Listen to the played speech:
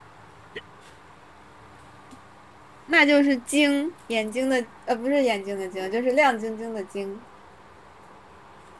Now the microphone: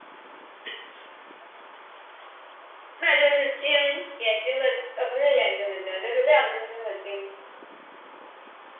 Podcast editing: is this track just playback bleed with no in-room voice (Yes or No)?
Yes